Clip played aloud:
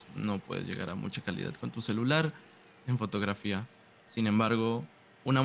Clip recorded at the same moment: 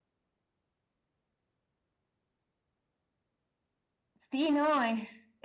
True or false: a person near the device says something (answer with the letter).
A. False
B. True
B